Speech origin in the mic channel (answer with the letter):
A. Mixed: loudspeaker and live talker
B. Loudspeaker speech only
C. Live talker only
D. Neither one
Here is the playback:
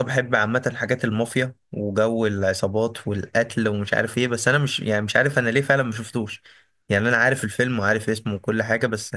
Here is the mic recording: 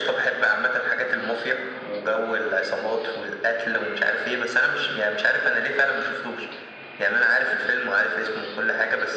B